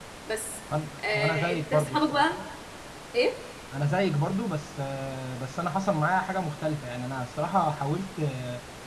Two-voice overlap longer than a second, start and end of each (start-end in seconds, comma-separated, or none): 1.1-2.3